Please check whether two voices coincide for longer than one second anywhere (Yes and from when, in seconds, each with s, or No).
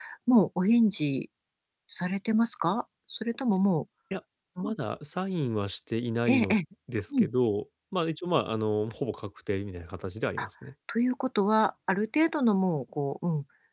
No